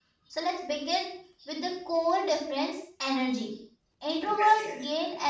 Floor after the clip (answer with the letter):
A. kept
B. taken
A